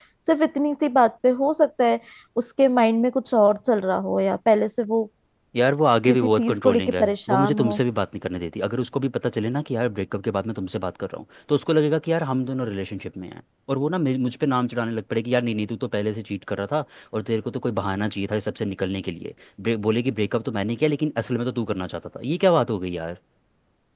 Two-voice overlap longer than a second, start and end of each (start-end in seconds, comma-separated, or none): 6.1-7.8